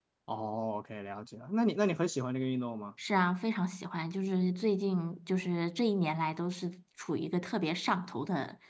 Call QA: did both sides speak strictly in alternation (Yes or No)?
Yes